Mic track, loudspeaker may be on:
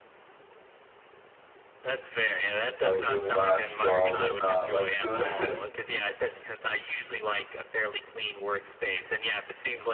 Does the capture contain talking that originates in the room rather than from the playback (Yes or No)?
Yes